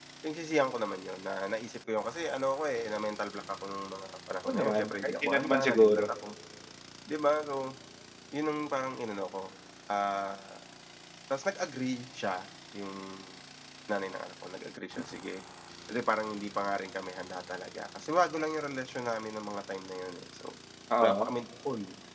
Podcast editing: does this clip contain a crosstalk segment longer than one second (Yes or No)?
Yes